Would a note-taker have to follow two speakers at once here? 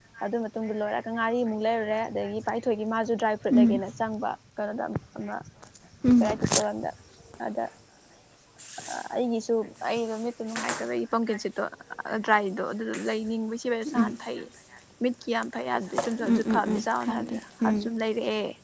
Yes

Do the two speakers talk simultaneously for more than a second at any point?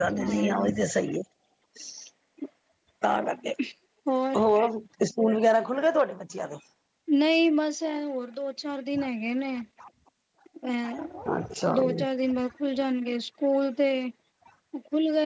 No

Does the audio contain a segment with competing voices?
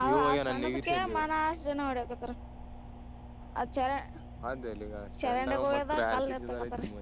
Yes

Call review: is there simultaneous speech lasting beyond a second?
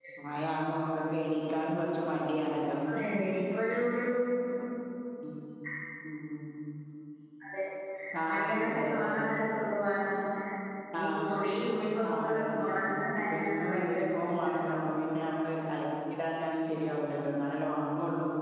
Yes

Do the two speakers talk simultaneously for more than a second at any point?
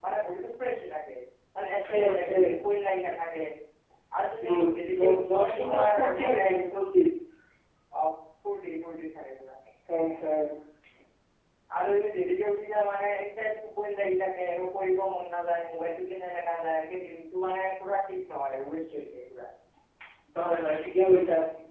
Yes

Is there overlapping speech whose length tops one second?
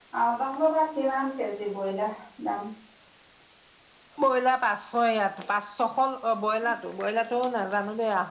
No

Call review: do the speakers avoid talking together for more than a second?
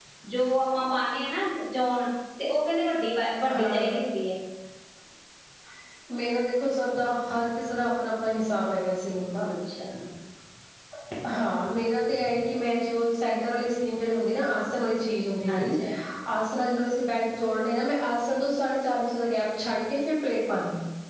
Yes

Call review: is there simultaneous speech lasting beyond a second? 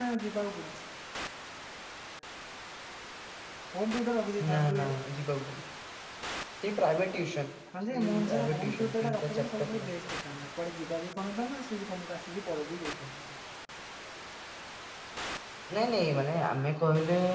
Yes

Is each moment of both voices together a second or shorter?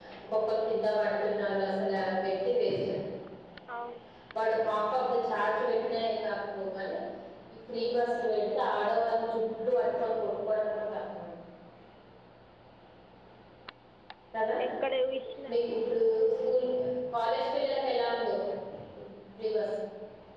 Yes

